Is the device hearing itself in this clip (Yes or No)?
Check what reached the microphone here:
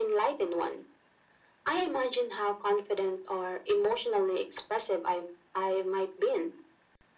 Yes